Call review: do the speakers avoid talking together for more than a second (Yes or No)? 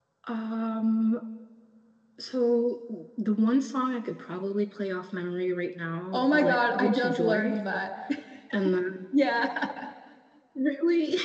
No